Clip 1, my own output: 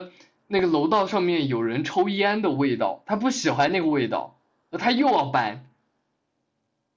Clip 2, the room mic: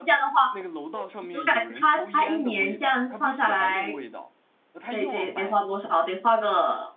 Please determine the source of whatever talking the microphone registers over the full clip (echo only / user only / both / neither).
both